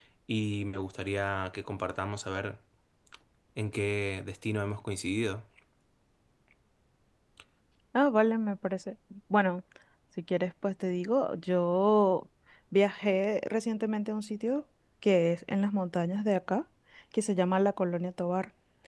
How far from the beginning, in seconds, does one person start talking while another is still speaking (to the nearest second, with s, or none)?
none